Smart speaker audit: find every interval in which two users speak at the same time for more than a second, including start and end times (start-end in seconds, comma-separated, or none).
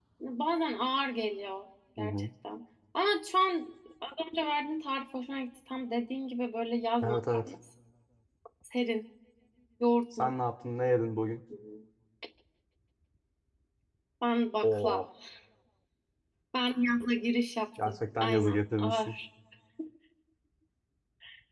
17.9-19.1